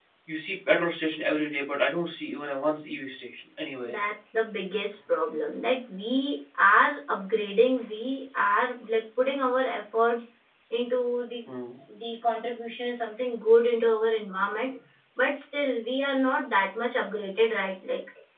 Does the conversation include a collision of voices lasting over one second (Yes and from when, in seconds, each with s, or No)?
No